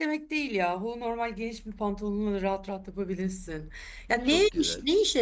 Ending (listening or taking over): listening